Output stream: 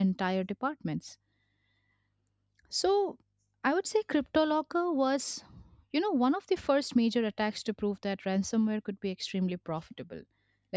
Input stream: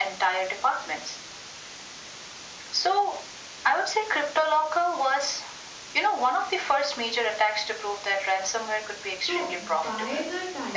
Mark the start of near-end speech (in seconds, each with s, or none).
9.2 s